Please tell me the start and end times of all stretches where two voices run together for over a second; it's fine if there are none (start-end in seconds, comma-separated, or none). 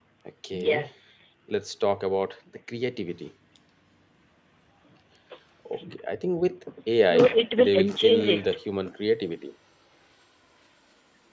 7.1-8.5